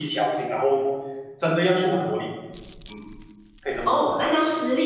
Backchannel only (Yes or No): No